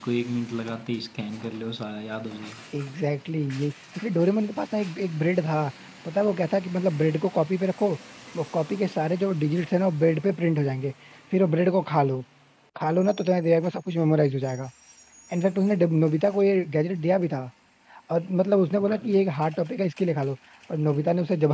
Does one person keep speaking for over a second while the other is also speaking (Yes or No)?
No